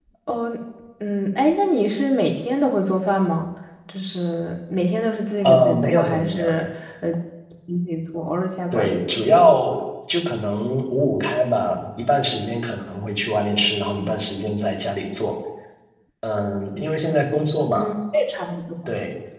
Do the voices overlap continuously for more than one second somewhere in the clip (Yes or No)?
Yes